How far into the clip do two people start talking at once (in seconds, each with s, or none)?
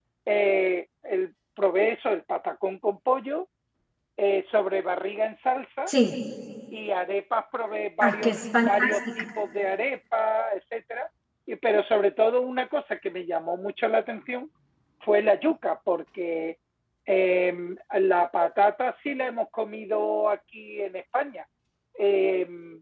8.0 s